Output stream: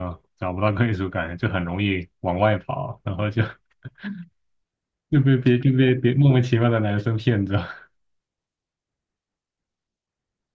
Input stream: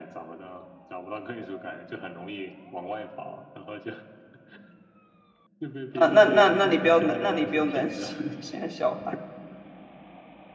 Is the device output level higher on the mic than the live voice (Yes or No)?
No